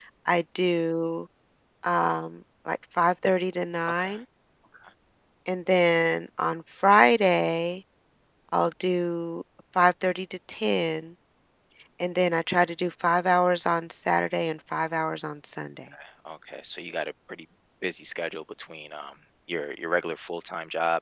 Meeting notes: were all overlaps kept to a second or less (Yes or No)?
Yes